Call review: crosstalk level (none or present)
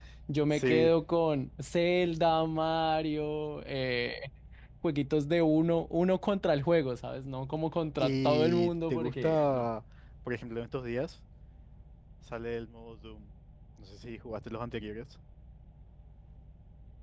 present